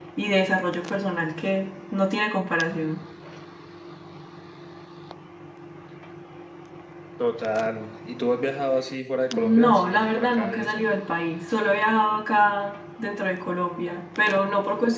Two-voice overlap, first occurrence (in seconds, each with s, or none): 9.3 s